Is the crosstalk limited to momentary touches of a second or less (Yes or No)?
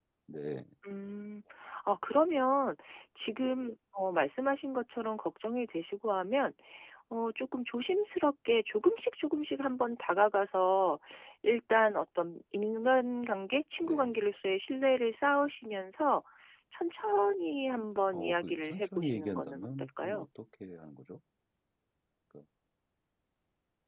No